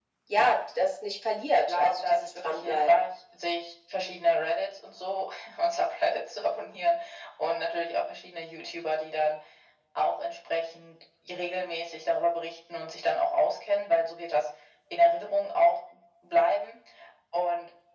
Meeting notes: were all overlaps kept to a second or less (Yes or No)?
No